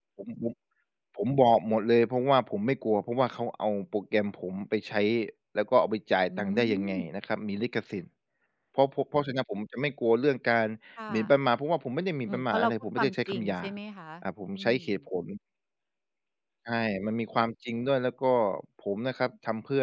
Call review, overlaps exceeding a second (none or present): present